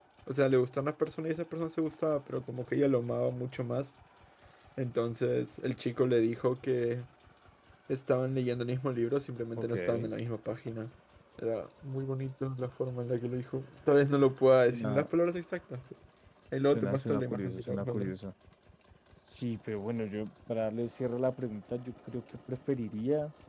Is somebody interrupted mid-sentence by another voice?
Yes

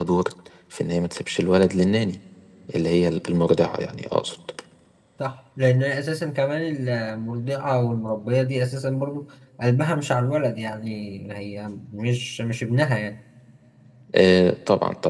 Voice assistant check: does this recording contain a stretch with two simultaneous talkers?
No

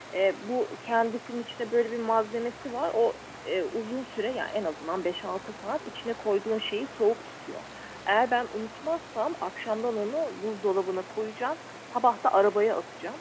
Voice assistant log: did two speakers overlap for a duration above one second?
No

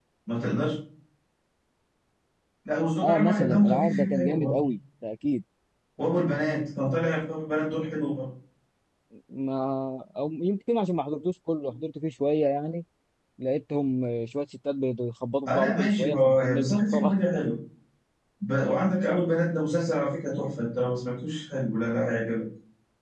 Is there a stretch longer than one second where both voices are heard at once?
Yes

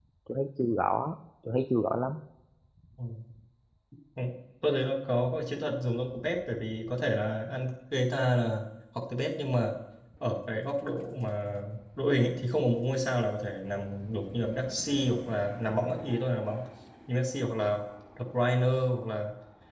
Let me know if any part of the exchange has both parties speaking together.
No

